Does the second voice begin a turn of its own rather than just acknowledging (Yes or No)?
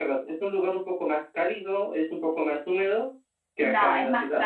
Yes